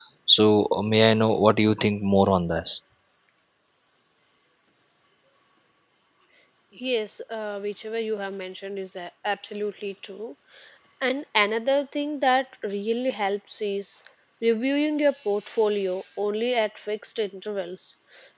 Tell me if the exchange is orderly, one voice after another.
Yes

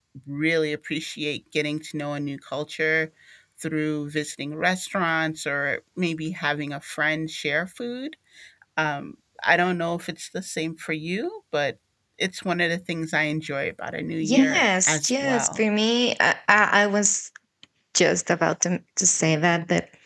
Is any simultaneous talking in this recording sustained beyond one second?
Yes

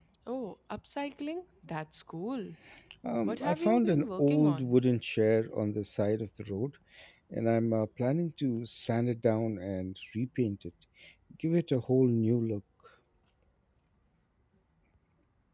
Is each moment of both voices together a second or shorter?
No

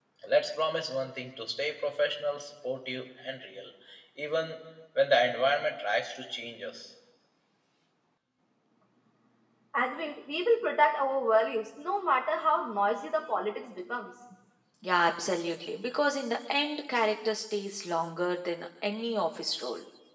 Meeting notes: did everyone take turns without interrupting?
Yes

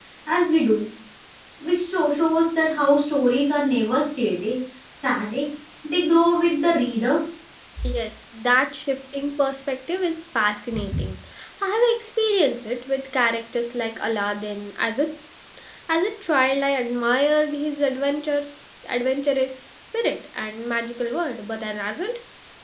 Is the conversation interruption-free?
Yes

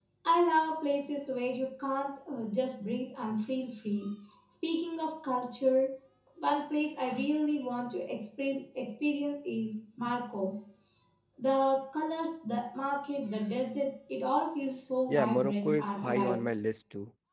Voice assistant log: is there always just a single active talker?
No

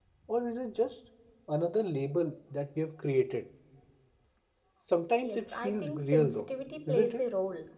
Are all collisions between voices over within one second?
No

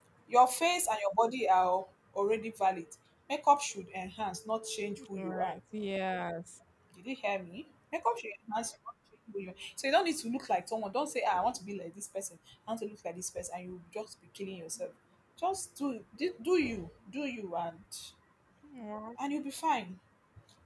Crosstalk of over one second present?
No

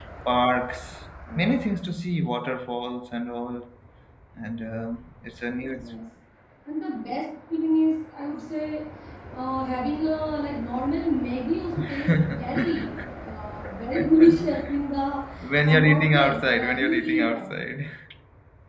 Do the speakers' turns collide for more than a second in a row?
Yes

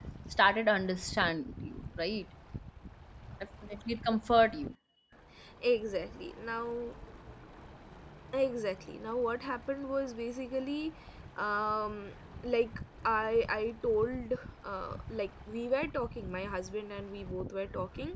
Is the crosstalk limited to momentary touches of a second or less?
Yes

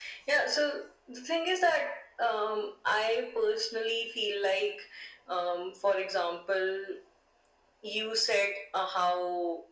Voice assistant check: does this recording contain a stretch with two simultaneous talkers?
No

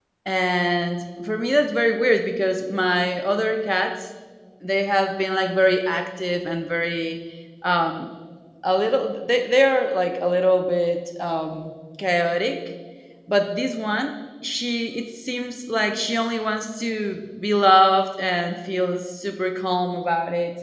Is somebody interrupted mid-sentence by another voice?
No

